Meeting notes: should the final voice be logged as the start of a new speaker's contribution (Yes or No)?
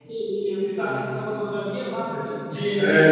Yes